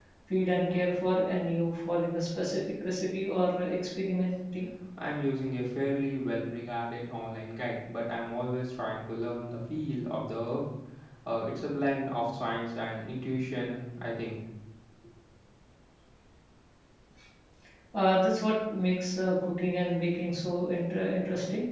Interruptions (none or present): none